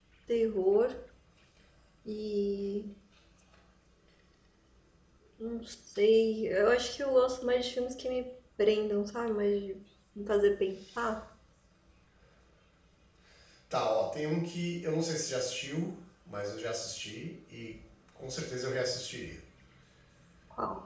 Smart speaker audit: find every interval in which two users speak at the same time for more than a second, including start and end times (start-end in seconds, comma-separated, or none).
none